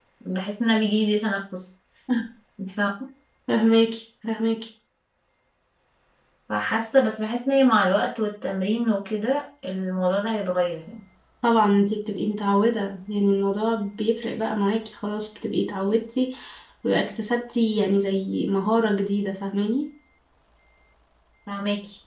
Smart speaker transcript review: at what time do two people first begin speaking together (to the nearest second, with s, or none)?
none